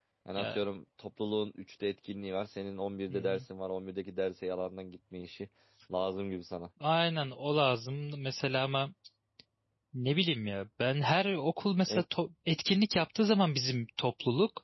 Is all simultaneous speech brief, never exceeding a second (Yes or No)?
Yes